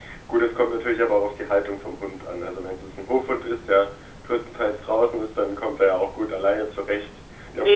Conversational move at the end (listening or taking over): taking over